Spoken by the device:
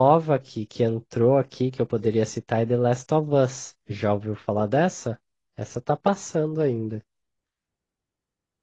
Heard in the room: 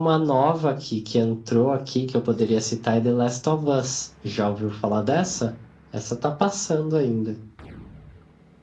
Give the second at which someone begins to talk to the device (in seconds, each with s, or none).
none